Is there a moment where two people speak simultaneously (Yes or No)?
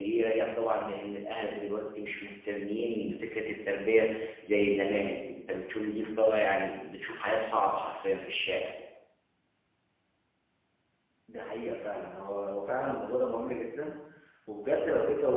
No